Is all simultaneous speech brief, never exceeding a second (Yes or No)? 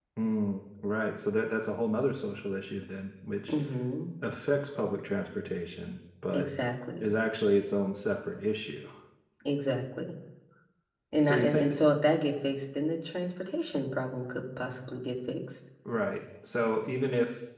Yes